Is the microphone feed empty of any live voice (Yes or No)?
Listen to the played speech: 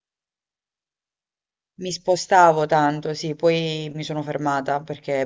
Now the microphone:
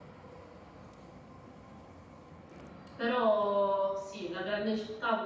No